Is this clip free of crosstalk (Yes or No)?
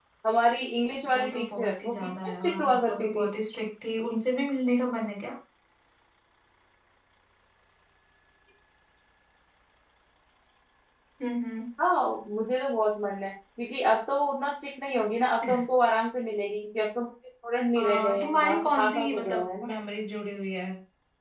No